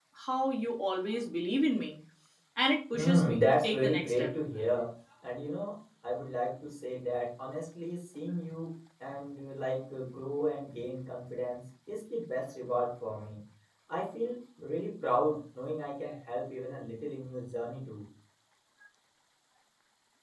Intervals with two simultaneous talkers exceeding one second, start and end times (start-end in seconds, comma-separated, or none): 2.9-4.3